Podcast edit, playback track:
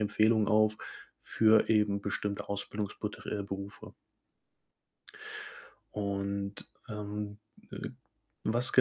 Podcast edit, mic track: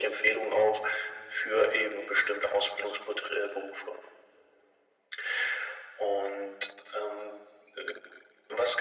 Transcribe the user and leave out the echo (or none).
none